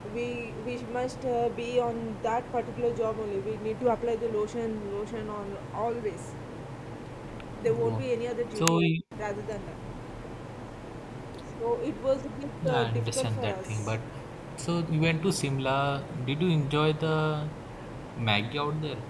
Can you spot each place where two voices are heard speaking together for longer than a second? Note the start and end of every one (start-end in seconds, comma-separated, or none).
12.6-13.9